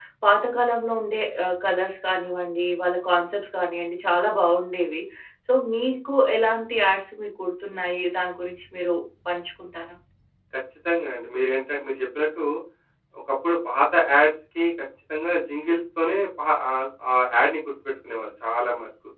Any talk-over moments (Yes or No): No